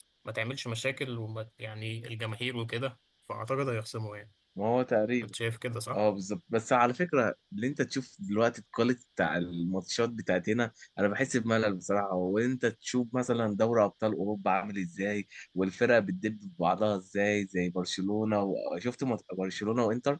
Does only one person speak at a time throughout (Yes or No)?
Yes